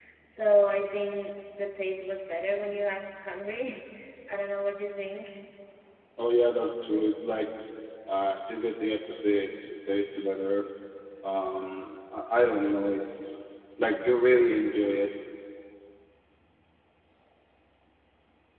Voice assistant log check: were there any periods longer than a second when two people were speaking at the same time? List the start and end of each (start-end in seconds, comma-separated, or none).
none